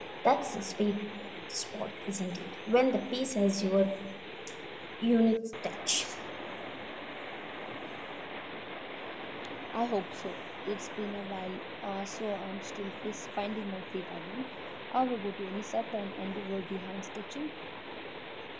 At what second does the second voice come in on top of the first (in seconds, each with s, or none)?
none